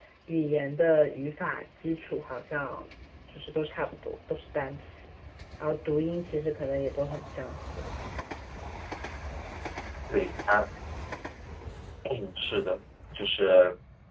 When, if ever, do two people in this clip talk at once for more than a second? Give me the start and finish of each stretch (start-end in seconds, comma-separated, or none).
none